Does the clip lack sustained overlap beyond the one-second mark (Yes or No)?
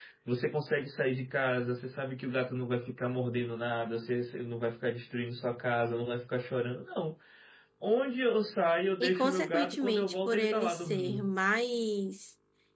No